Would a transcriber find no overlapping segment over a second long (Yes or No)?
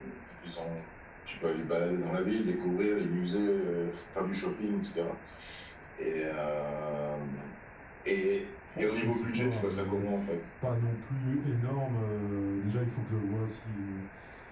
No